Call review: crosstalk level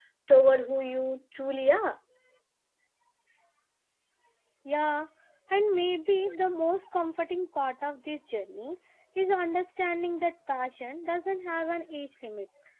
none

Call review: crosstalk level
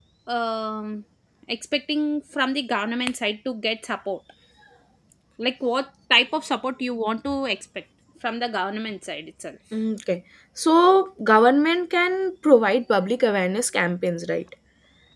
none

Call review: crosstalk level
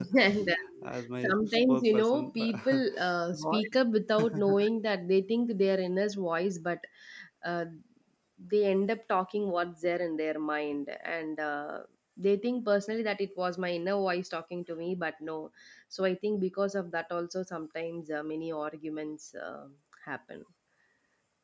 present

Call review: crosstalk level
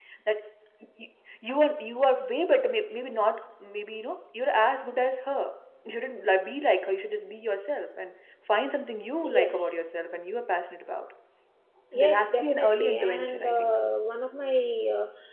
present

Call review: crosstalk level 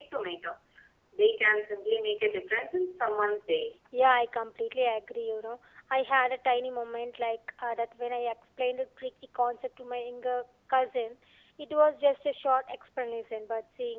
none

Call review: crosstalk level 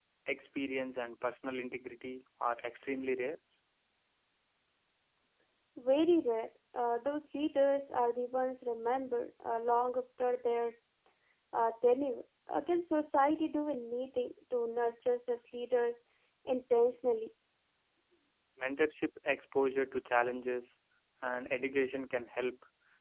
none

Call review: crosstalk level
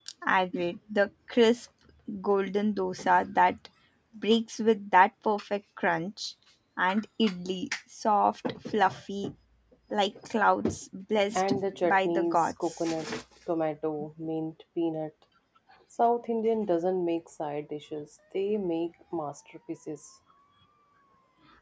present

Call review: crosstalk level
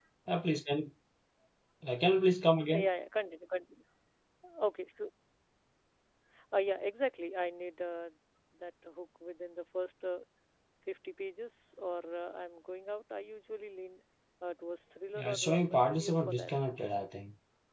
present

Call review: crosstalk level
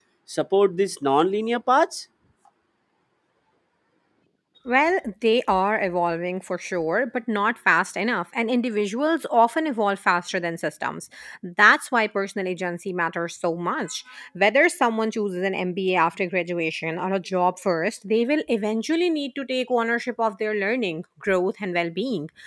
none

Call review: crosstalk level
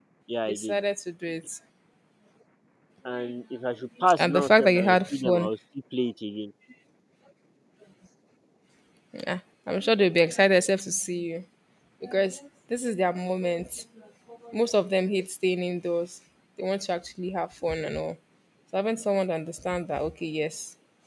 present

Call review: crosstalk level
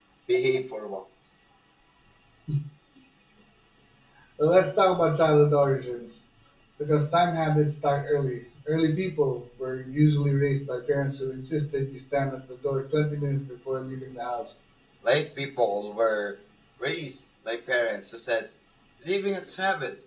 none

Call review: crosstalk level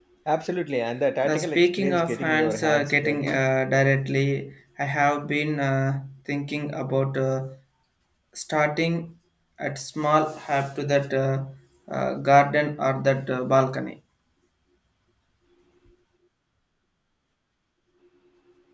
present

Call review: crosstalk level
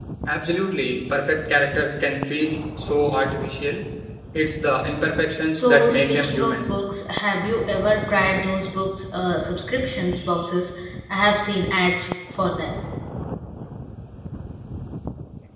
present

